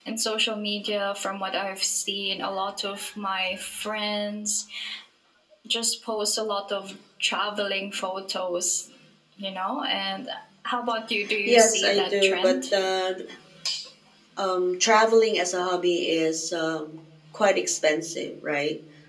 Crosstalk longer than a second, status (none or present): present